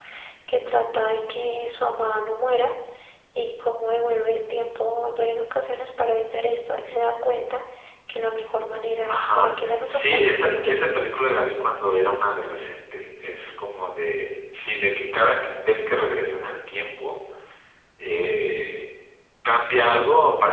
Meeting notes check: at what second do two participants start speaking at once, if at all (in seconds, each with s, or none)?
9.1 s